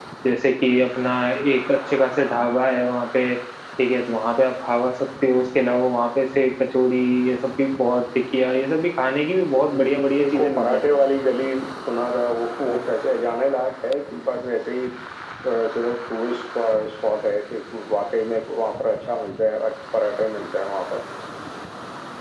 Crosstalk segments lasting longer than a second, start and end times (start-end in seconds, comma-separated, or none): 9.7-11.0